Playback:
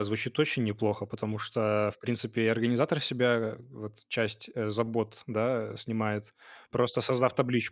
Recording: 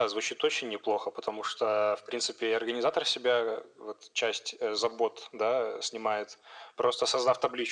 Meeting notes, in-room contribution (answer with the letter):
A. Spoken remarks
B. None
B